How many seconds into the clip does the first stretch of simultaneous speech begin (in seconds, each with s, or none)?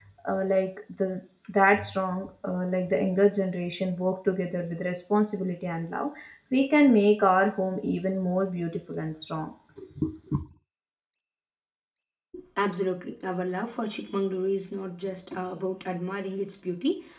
none